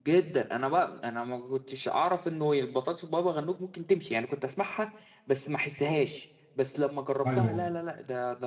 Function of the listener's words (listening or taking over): listening